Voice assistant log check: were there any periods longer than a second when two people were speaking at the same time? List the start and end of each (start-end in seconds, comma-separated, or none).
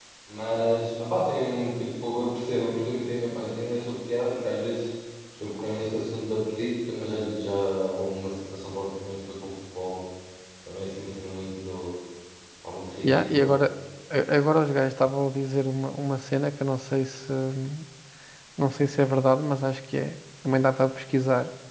none